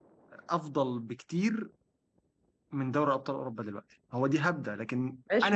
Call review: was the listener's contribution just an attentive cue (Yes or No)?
No